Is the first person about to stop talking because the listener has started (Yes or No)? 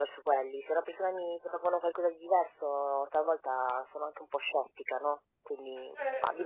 Yes